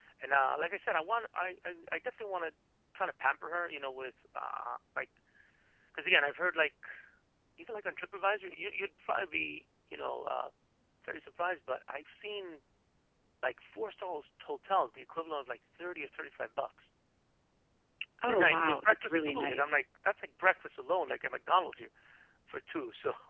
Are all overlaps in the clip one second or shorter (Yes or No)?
No